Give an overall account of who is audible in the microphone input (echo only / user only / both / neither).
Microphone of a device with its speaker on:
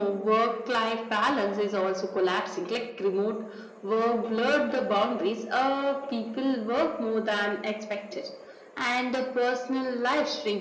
echo only